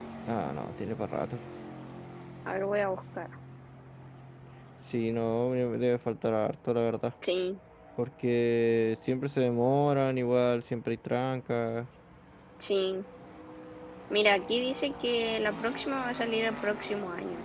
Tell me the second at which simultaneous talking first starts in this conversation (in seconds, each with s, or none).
none